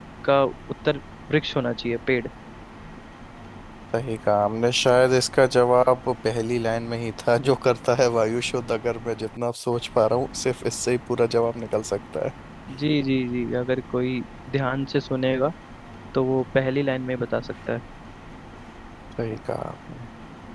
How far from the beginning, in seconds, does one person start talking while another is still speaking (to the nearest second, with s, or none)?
none